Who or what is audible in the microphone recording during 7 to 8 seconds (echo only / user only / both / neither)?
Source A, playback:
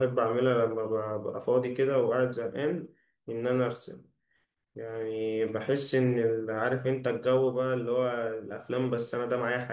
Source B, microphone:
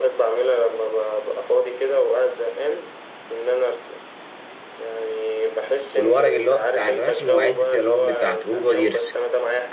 both